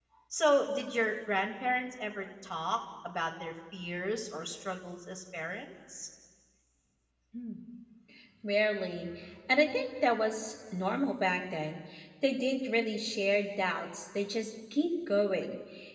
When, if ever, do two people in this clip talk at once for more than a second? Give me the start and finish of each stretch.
none

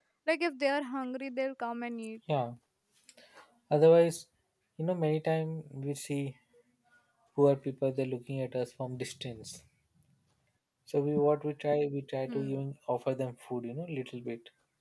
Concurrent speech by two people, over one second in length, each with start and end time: none

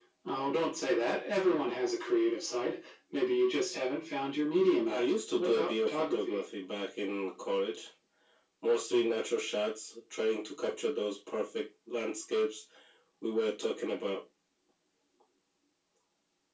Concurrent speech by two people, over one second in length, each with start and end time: 4.9-6.4

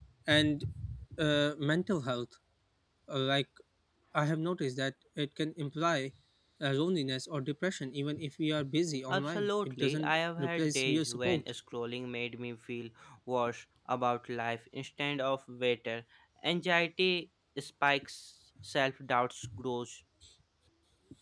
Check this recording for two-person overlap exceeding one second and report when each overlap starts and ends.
9.1-11.5

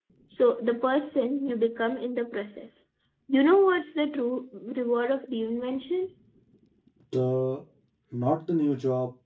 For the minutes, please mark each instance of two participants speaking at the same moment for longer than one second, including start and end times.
none

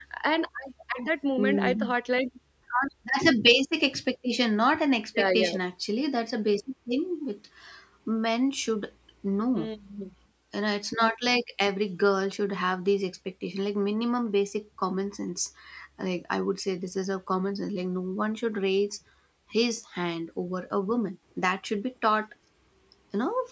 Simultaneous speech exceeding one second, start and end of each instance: none

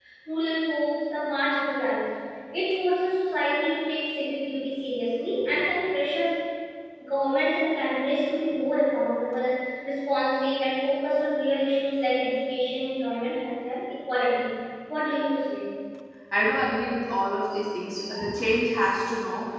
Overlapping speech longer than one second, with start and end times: none

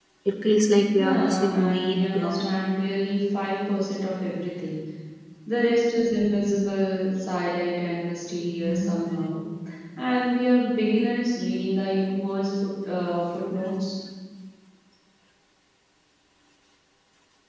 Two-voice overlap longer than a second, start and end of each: 1.0-2.4

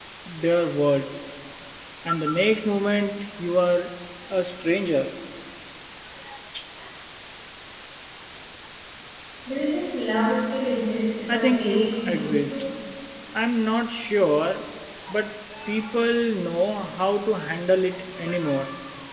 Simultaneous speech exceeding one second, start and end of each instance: 11.3-12.5

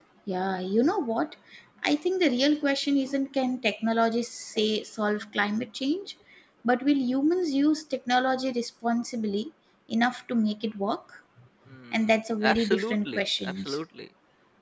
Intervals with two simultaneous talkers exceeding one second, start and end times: 11.9-13.8

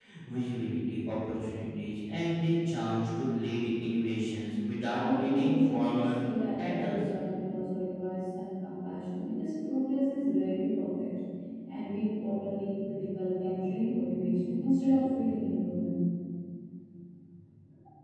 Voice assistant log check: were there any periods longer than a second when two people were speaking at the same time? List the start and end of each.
5.0-6.2

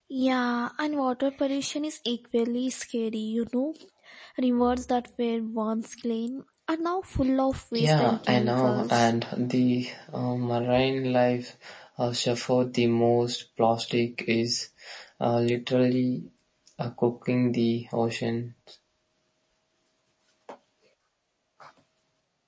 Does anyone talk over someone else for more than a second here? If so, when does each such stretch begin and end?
7.8-9.1

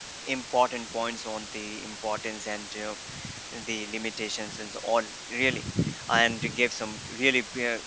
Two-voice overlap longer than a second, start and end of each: none

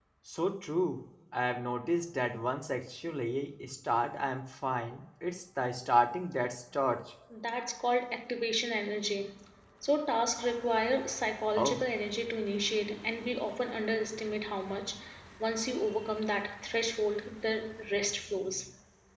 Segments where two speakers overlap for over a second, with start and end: none

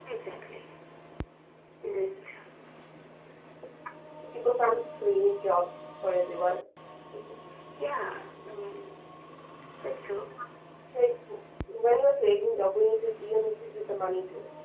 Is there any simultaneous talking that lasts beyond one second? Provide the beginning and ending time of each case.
none

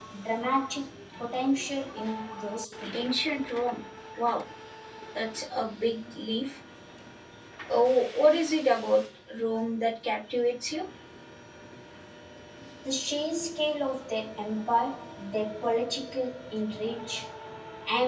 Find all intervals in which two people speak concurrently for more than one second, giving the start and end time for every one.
none

